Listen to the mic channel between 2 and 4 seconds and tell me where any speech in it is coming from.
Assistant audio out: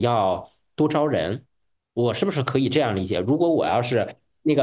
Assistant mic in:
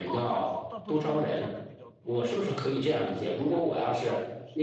both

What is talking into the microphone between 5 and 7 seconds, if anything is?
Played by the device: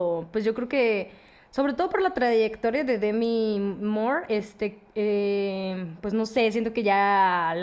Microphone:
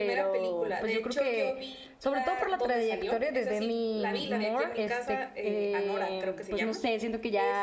both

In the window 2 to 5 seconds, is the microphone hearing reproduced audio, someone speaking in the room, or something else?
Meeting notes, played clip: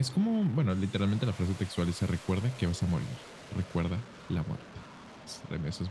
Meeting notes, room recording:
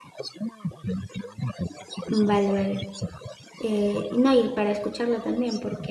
both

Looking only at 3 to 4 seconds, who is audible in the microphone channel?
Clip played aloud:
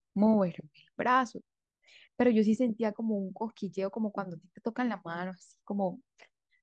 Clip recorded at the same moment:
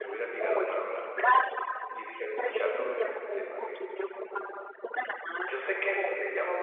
both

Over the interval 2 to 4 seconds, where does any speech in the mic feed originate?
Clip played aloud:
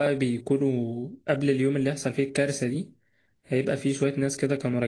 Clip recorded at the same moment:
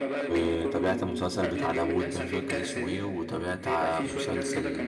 both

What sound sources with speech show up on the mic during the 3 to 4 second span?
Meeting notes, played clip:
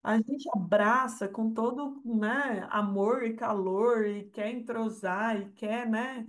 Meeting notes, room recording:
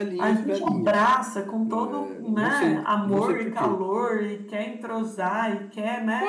both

